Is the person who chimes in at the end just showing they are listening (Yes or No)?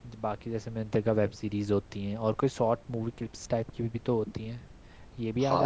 No